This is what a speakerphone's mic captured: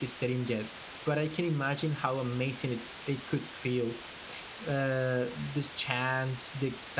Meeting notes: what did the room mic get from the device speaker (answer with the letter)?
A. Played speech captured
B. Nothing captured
B